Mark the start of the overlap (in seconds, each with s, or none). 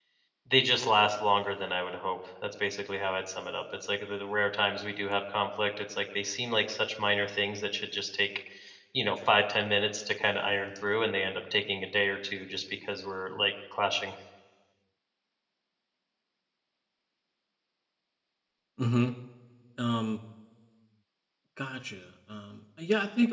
none